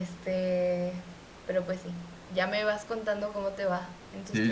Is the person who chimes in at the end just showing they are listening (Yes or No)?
No